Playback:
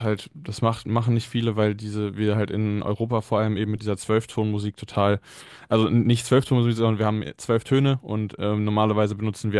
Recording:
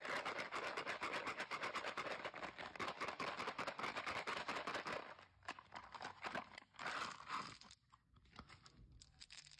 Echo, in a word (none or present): none